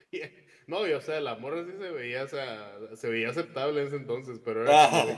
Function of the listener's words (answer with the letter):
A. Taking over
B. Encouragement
B